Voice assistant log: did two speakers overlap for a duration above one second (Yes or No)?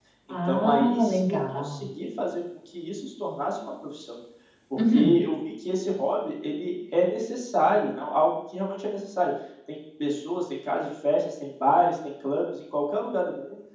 Yes